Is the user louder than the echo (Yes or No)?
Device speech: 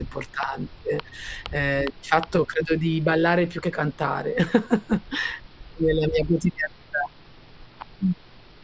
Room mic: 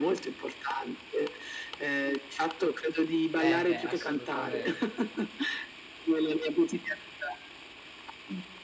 No